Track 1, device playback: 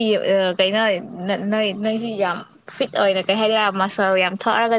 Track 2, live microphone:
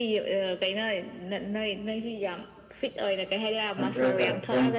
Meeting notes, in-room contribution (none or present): present